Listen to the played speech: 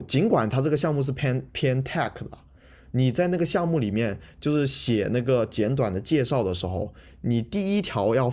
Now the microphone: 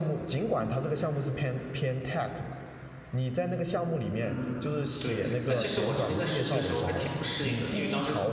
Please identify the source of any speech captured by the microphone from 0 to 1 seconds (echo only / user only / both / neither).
echo only